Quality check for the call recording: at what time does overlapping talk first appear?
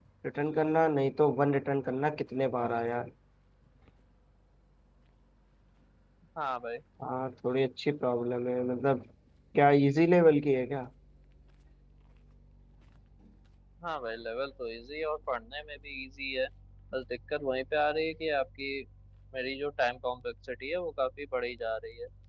none

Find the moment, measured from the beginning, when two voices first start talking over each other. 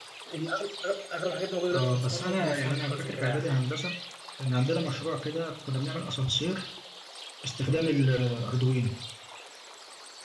2 s

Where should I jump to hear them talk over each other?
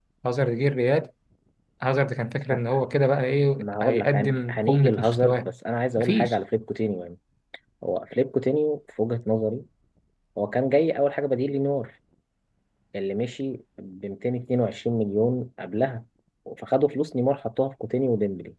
4 s

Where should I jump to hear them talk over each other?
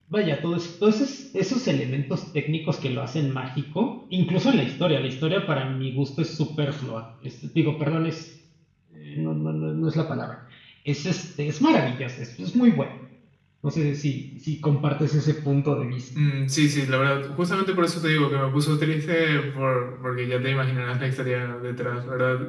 none

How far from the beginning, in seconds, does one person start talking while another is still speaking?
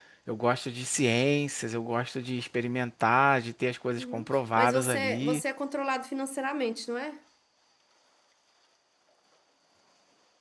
4 s

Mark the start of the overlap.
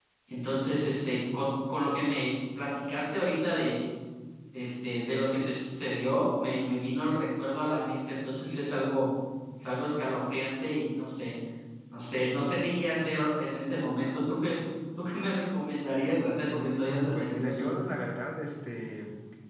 16 s

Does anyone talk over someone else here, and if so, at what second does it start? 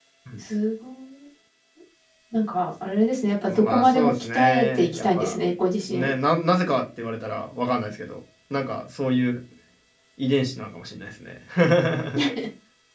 3 s

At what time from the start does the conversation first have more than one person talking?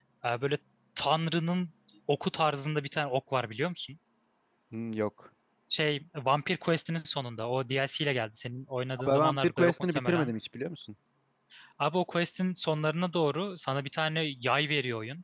9 s

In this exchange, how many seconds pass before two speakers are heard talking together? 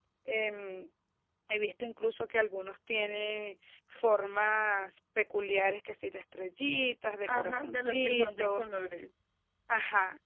7 s

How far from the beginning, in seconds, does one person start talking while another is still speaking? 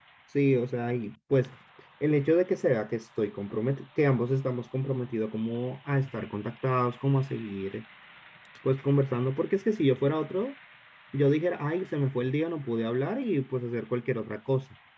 none

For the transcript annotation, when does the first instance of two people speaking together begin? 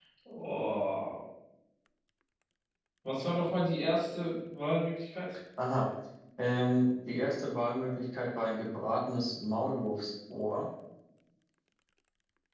none

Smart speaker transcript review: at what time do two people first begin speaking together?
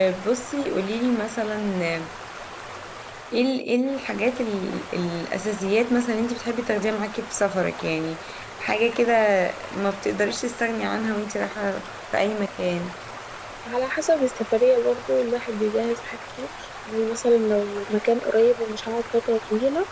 none

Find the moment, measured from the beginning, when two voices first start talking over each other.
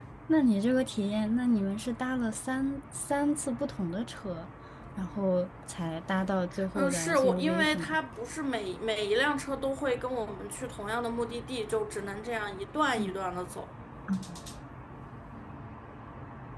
7 s

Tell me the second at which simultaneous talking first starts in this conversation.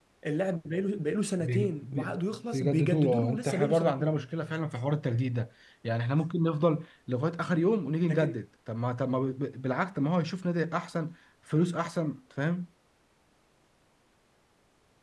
1 s

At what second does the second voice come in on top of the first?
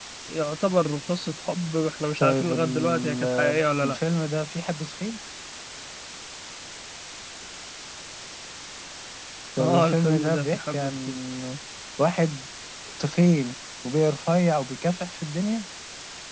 2 s

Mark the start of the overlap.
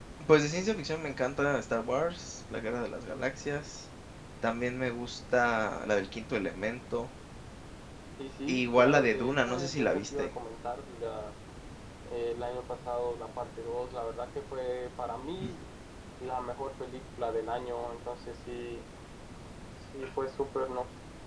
8 s

